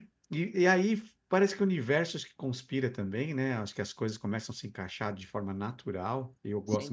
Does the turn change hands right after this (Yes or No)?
No